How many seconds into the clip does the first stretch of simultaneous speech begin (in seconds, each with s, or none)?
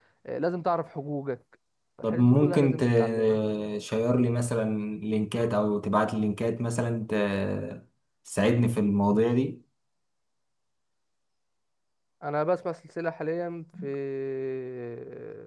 2.0 s